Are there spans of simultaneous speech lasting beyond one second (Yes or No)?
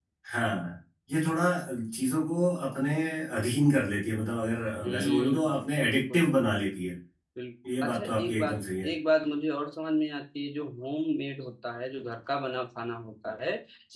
Yes